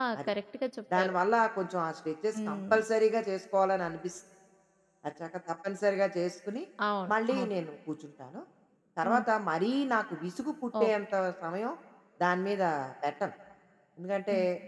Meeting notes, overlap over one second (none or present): none